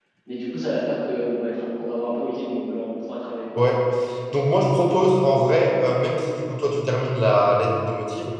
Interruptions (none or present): none